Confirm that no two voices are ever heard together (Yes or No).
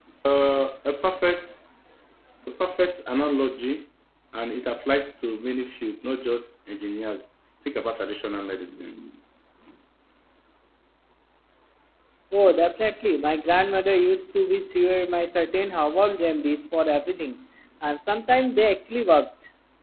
Yes